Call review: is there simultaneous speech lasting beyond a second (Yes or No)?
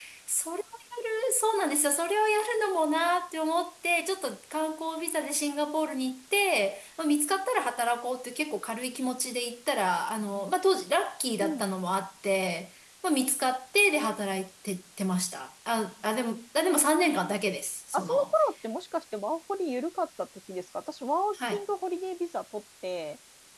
No